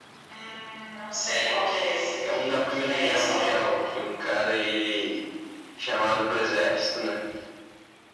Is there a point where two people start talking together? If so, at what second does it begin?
2 s

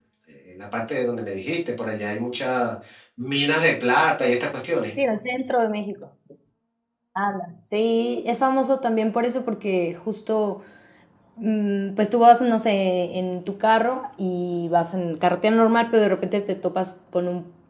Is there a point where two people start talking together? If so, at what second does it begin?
none

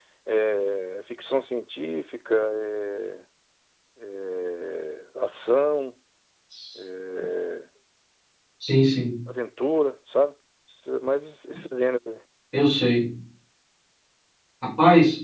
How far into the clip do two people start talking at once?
none

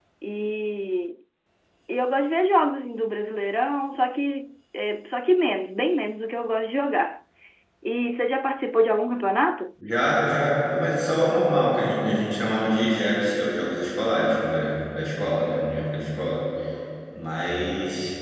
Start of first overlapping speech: none

